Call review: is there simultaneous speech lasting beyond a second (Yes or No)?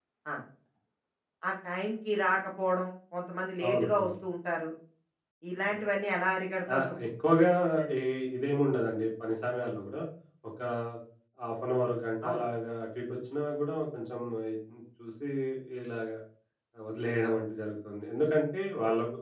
No